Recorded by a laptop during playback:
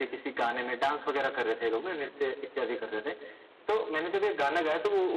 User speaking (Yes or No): No